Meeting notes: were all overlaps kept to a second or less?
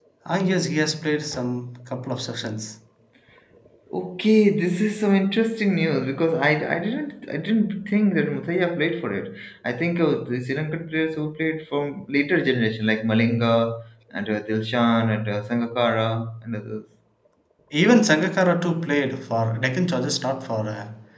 Yes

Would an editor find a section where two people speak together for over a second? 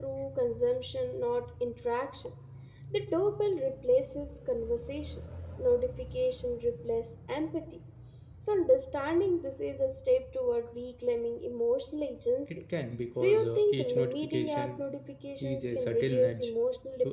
Yes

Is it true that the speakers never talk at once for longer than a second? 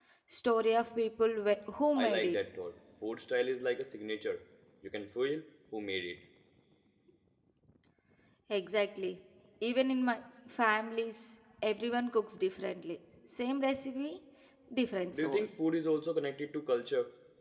Yes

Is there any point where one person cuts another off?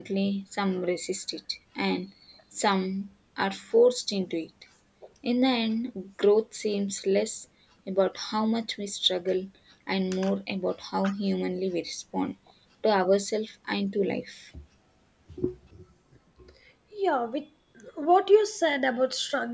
No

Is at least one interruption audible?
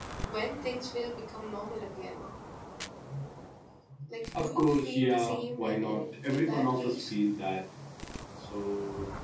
Yes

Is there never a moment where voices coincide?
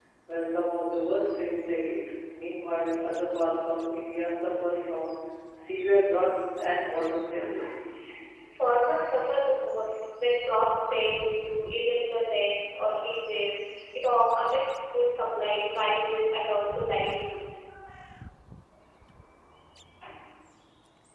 Yes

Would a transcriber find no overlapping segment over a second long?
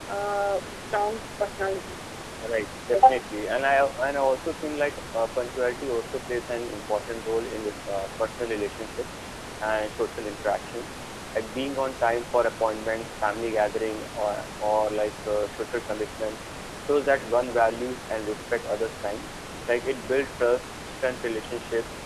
Yes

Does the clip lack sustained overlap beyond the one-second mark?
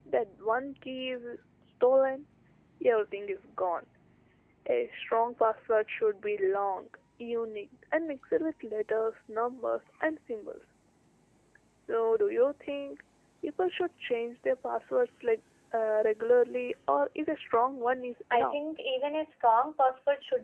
Yes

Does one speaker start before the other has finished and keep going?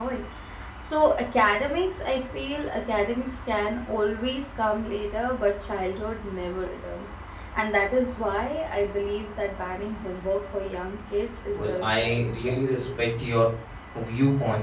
Yes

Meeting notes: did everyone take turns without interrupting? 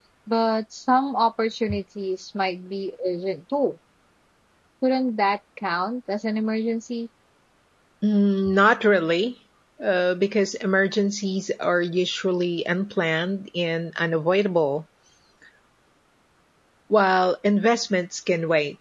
Yes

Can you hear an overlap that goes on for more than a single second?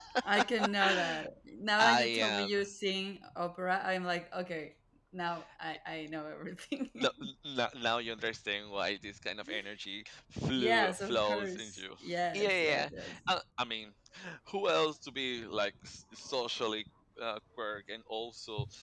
Yes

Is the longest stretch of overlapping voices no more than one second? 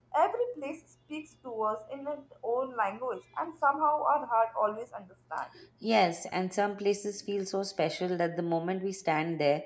Yes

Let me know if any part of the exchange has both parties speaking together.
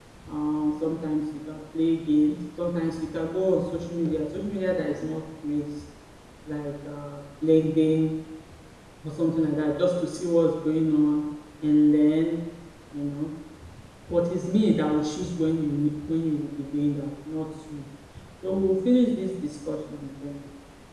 No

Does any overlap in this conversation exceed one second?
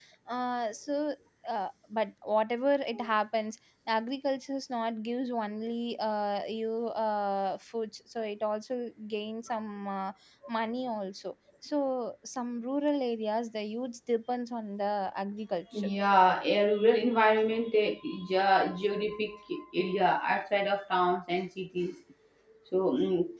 No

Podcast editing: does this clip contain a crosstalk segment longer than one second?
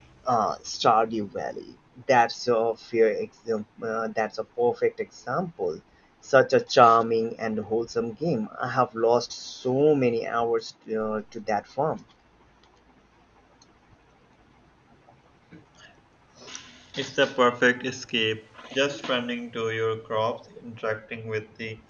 No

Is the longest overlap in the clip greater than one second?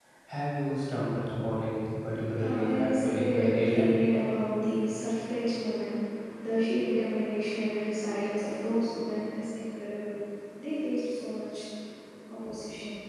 Yes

